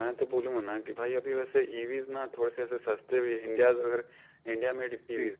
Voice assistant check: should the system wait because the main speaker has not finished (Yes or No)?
Yes